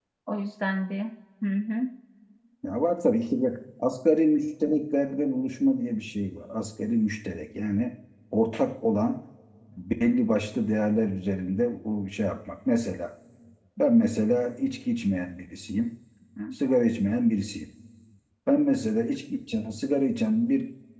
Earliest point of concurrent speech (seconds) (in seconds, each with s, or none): none